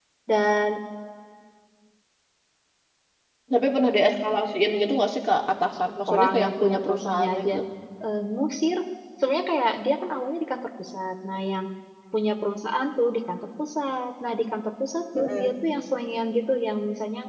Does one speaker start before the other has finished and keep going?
Yes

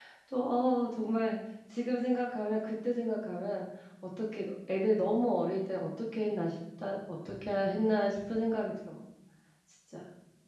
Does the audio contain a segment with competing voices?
No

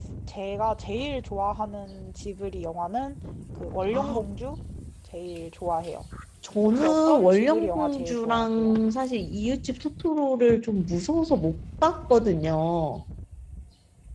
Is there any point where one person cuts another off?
Yes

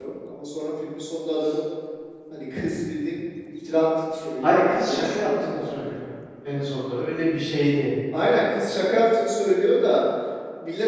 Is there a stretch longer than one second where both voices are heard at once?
Yes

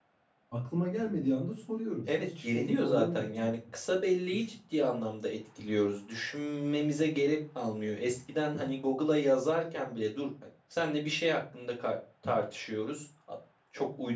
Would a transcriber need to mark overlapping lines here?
Yes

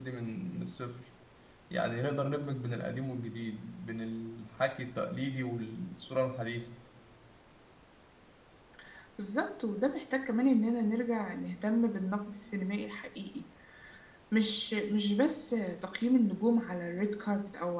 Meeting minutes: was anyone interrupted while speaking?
No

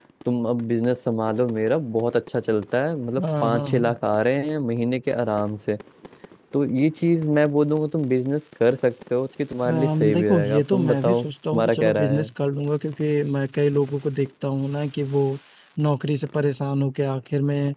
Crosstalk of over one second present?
Yes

